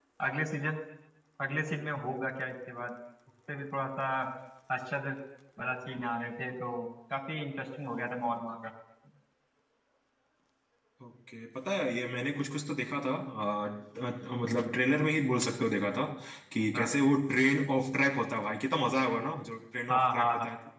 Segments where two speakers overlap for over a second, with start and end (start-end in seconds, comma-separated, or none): none